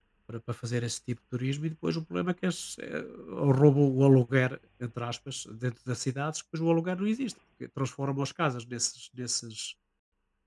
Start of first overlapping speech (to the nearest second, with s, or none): none